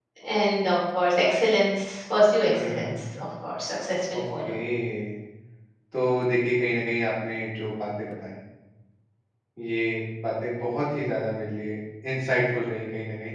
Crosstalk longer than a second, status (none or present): none